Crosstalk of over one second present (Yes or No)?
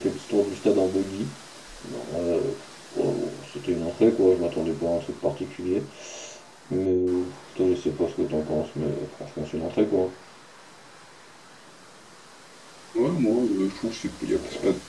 No